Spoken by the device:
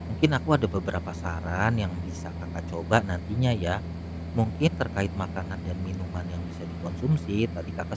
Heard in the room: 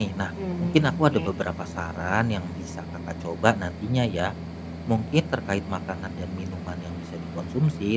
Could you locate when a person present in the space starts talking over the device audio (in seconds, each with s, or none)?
0.4 s